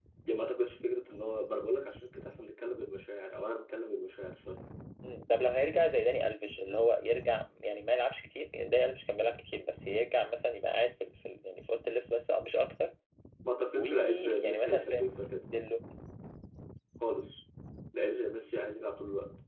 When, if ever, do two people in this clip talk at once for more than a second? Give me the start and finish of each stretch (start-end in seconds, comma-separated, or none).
13.8-15.0